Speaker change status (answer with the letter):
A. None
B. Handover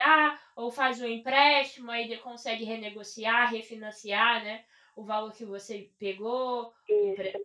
A